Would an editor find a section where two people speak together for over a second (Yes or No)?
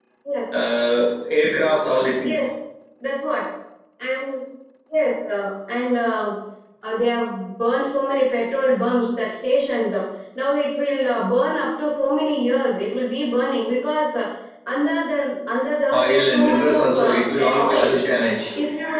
Yes